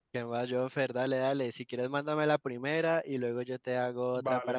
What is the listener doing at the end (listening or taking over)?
taking over